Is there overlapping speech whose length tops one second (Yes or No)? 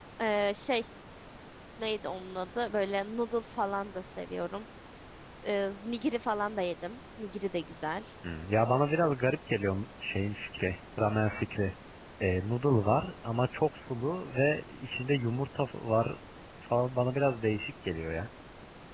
No